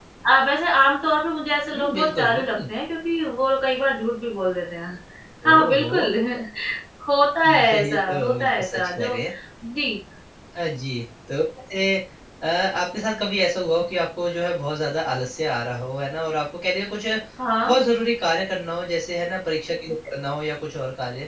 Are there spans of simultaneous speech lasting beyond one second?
Yes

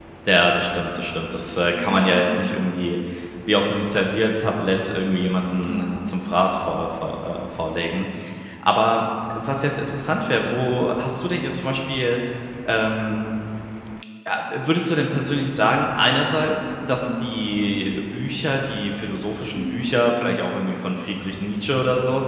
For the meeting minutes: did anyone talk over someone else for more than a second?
No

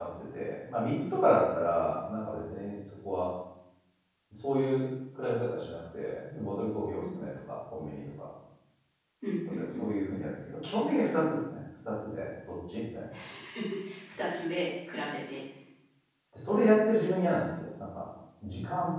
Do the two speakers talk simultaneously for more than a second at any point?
No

